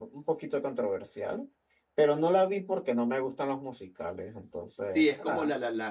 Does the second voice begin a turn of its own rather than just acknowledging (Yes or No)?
Yes